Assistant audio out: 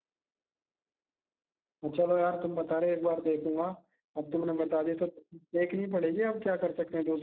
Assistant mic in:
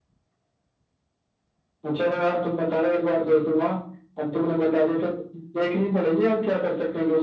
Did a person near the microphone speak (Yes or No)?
No